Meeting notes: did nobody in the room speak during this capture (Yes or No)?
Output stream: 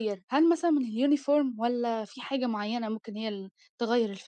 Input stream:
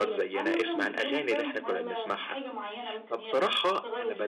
No